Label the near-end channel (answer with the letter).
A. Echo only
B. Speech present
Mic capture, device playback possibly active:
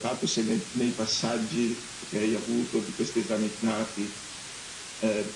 A